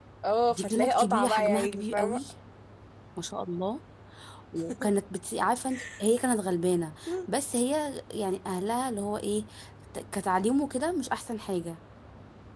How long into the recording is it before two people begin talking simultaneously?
0.5 s

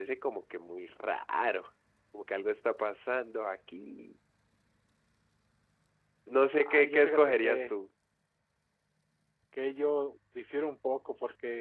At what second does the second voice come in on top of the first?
6.5 s

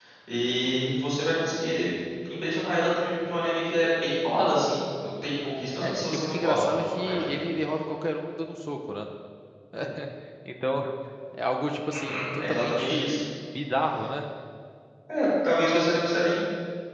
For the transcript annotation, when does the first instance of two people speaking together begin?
5.8 s

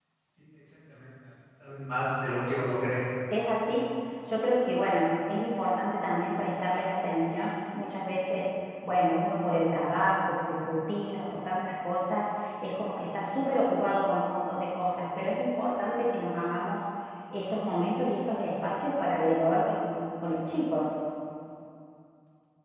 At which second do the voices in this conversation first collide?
none

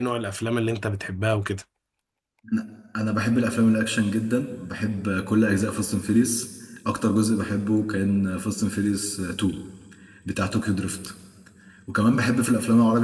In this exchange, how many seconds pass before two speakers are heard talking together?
none

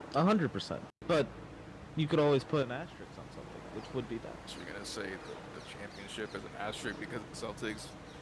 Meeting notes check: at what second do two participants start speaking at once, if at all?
none

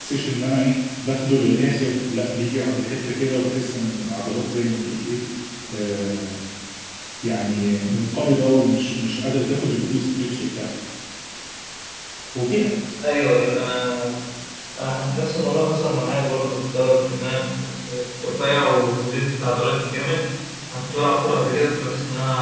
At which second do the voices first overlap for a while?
none

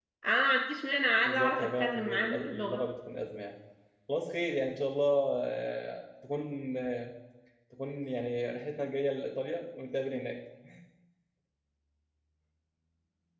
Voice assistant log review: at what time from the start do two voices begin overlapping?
1.2 s

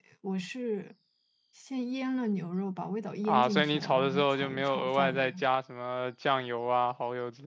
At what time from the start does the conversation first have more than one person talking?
3.2 s

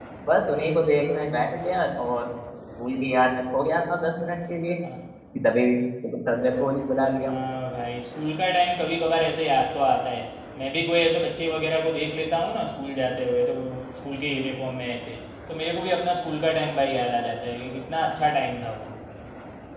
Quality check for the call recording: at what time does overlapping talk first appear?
none

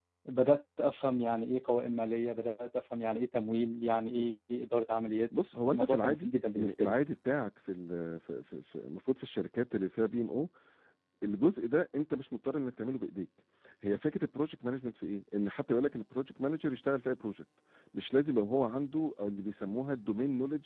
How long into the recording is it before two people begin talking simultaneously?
5.7 s

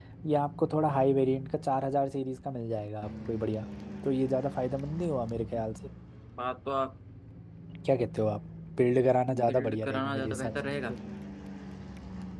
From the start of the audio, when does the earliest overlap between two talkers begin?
9.3 s

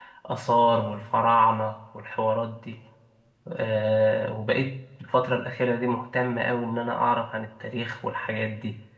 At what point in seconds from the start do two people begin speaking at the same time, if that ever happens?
none

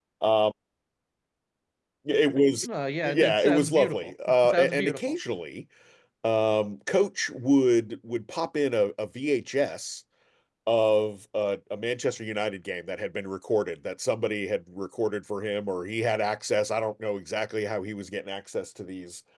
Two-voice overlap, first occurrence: 3.0 s

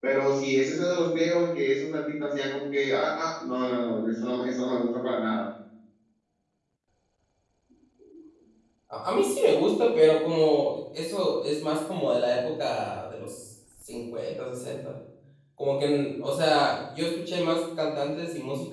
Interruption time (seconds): none

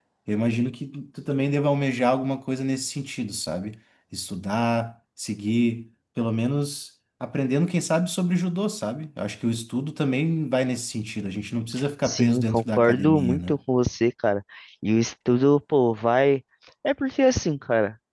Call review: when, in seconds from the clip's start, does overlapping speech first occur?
12.0 s

